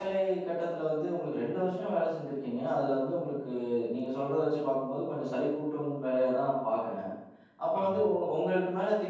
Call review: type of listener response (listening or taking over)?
listening